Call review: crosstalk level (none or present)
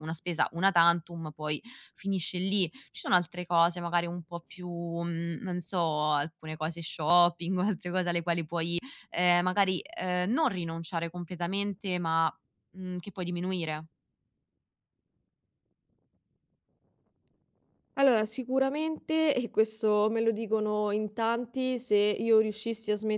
none